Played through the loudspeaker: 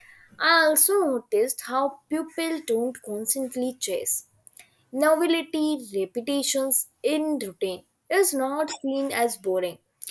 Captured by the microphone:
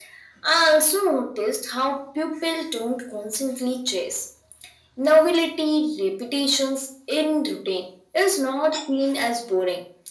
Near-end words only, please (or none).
none